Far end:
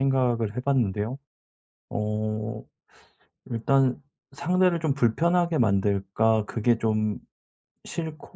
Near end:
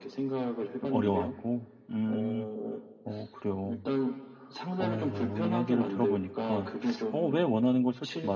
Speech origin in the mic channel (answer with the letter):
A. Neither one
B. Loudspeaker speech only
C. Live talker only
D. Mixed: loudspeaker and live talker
D